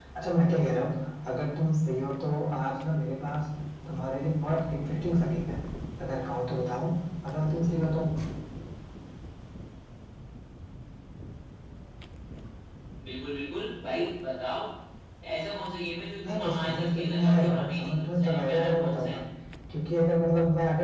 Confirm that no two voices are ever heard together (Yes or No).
No